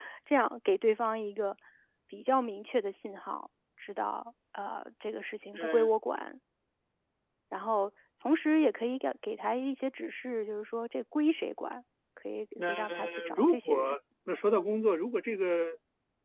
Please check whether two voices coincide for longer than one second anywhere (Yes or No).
Yes